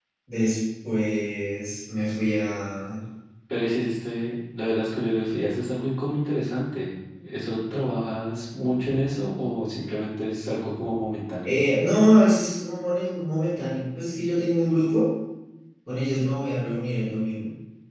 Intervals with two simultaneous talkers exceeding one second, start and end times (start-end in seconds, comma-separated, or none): none